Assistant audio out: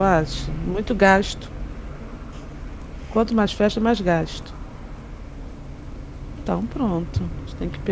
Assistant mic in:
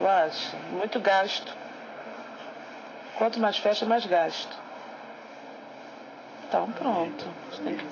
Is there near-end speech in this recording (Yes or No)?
Yes